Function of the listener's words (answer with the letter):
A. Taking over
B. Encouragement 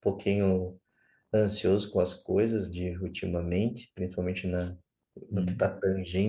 B